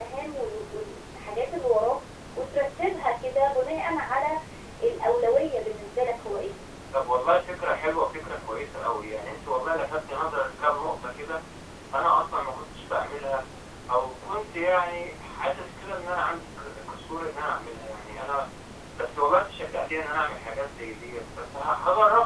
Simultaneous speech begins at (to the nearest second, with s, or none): none